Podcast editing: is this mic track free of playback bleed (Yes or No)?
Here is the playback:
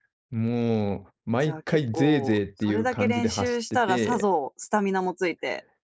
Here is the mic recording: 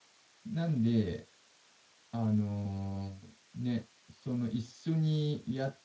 Yes